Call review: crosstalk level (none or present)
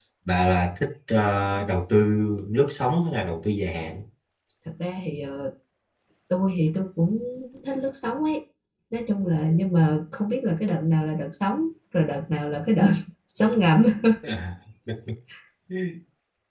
none